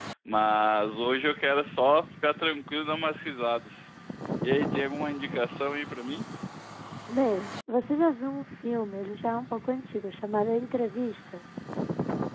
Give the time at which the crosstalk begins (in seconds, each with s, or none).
none